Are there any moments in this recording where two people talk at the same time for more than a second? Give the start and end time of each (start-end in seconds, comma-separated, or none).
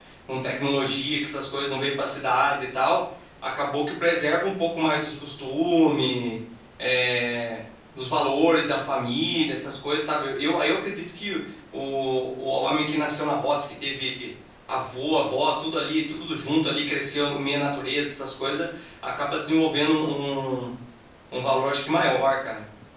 none